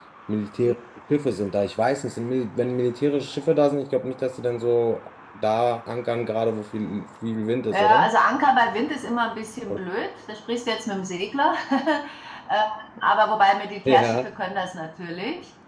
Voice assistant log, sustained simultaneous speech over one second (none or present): none